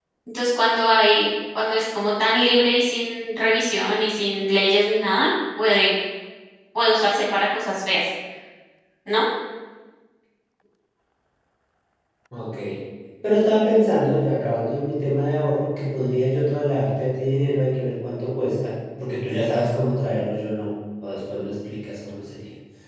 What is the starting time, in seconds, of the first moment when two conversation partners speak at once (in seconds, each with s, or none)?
none